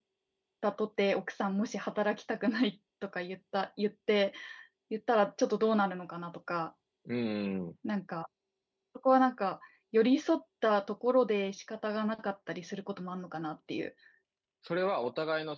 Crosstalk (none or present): none